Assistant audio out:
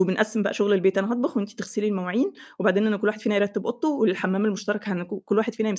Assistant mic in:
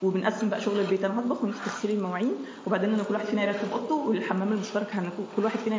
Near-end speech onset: none

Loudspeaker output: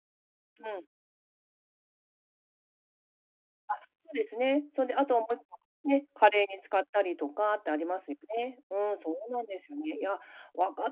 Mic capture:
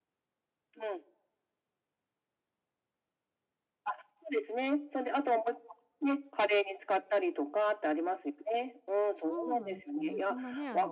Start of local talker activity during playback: 9.2 s

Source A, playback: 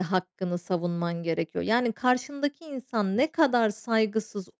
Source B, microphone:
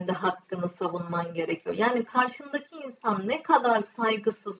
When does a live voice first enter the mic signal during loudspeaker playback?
none

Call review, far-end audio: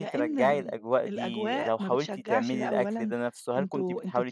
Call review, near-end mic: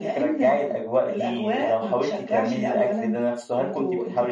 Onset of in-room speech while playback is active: none

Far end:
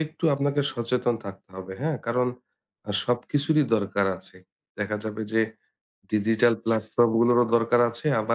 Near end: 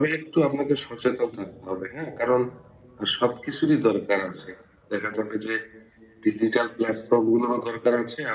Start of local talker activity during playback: none

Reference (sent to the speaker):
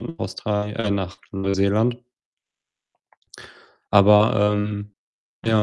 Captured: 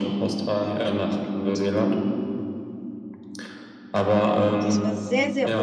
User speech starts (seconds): 4.6 s

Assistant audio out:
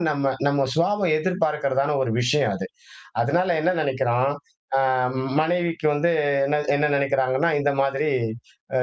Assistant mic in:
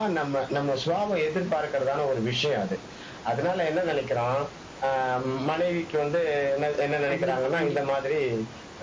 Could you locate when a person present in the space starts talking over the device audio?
7.1 s

